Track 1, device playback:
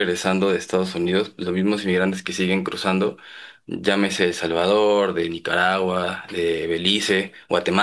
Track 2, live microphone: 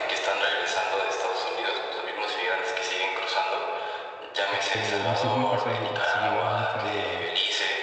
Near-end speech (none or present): present